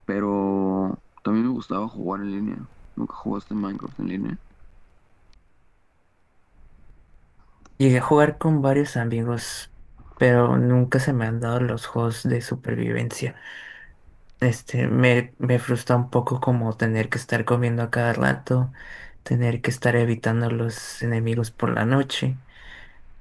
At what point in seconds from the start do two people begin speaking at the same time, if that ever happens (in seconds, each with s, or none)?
none